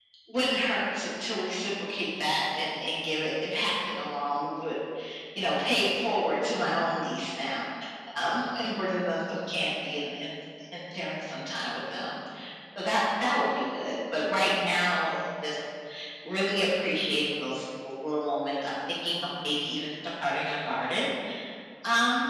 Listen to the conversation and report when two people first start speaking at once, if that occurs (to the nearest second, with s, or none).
none